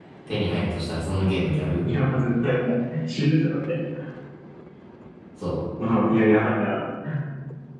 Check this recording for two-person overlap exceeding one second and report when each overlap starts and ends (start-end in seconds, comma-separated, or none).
none